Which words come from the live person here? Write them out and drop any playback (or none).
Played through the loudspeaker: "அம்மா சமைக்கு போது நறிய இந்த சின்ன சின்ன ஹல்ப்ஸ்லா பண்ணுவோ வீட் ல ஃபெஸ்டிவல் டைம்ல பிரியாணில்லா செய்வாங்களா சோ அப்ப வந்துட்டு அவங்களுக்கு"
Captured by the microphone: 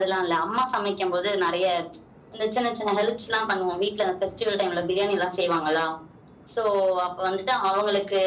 none